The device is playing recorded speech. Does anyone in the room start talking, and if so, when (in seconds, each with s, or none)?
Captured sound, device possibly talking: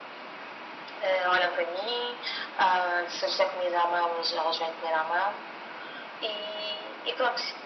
none